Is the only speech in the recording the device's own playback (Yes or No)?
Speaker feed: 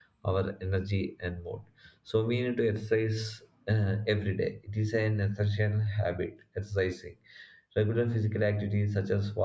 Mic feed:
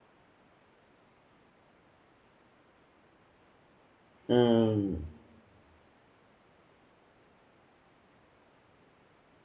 No